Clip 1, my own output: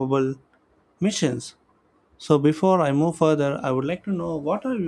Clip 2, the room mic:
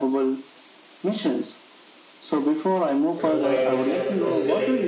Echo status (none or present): present